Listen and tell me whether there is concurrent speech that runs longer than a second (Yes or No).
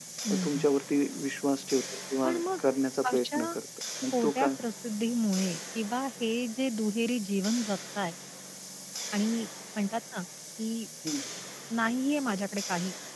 No